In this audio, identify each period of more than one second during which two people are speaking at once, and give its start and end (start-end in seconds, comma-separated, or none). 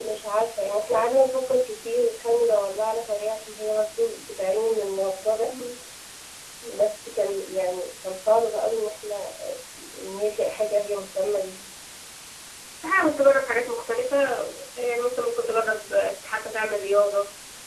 none